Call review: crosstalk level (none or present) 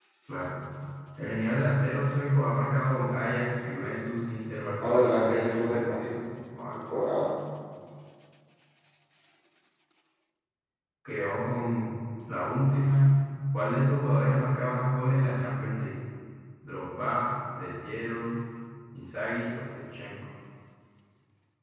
present